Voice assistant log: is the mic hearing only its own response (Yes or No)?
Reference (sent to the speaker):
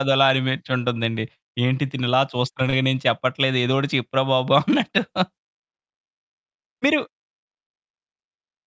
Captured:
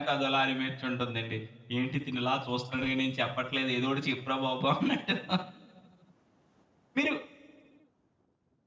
Yes